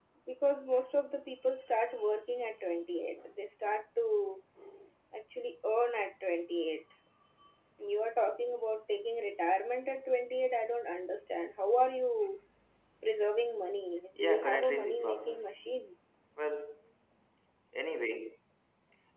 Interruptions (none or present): present